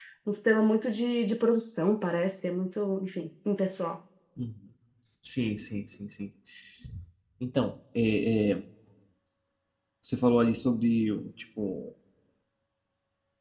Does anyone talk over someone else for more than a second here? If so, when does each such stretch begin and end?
none

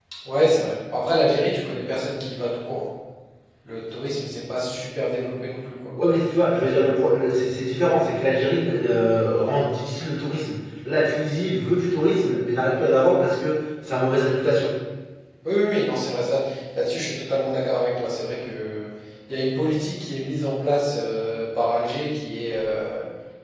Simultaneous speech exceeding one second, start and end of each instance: none

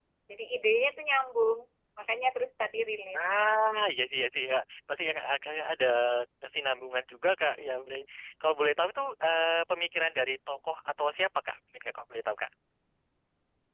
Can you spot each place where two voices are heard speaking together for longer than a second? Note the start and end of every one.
none

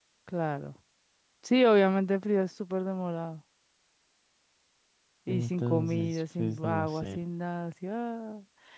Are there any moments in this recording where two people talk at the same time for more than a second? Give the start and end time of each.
5.3-7.2

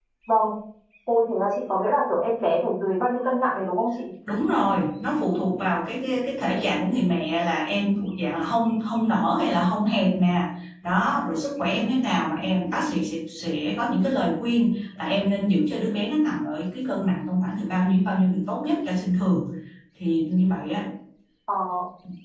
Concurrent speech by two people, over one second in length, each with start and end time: none

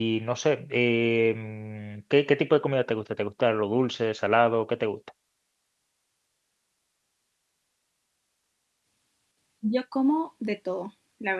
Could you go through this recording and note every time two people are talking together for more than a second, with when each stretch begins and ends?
none

